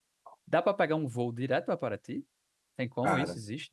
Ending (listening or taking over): taking over